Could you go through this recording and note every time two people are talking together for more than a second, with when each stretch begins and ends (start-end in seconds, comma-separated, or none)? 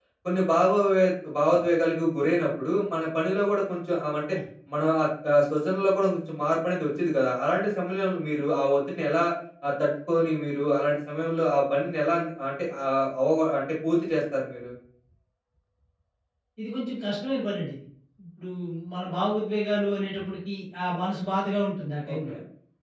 none